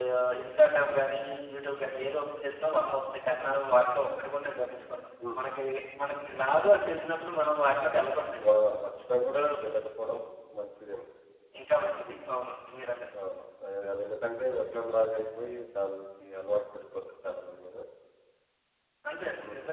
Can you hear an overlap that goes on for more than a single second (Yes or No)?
No